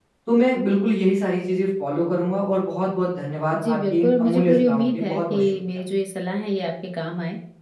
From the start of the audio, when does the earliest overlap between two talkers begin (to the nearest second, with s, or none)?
4 s